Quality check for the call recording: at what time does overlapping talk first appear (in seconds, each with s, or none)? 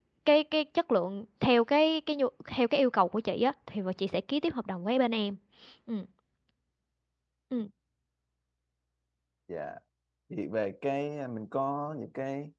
none